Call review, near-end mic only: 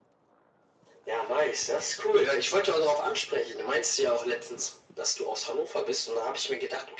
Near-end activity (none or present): none